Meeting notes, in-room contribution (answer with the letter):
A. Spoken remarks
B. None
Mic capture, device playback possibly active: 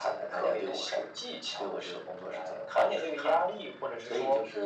B